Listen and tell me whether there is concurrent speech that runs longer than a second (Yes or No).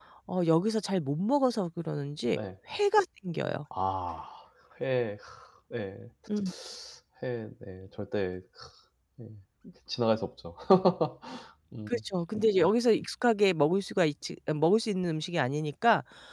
No